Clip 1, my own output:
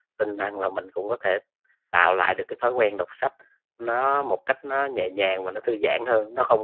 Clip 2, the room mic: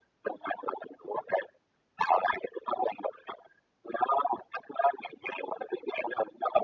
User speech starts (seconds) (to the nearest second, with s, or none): none